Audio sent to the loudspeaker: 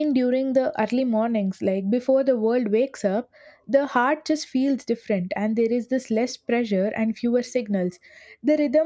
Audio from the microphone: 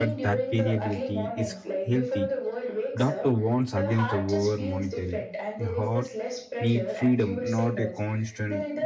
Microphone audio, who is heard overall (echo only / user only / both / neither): both